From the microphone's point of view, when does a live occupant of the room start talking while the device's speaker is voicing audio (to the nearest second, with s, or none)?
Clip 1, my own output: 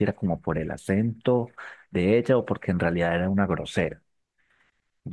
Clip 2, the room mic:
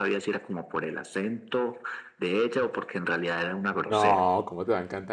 4 s